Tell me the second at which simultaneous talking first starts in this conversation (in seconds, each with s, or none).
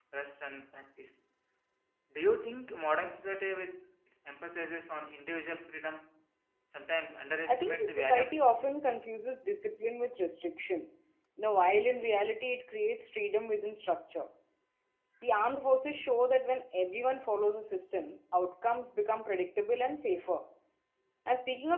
7.5 s